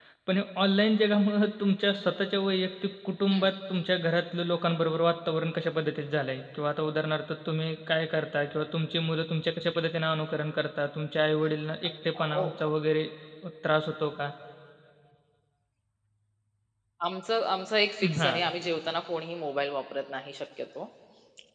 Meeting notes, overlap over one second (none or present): none